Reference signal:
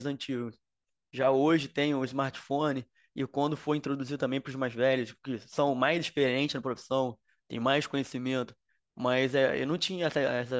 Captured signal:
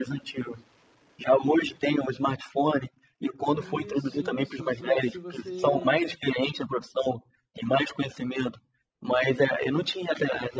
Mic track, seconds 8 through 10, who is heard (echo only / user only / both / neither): echo only